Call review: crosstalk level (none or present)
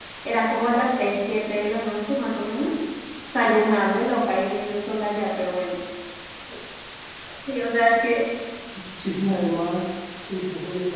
none